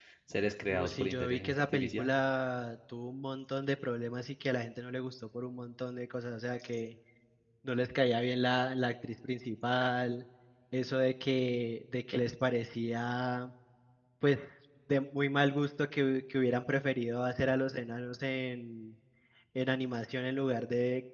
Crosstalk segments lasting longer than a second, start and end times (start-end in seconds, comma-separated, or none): 0.7-2.1